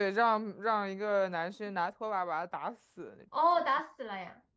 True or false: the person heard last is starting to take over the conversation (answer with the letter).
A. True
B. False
A